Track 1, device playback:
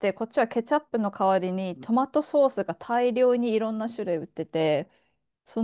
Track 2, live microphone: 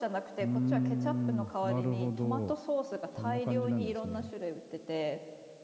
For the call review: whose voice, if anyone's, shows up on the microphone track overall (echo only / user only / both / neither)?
both